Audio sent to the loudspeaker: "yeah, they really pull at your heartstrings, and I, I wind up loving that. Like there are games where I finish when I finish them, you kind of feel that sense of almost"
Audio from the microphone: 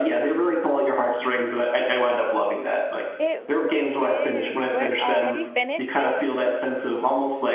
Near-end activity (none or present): present